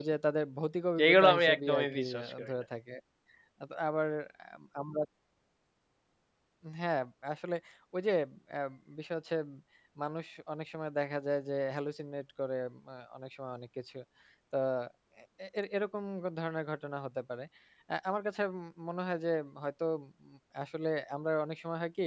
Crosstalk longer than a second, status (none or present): present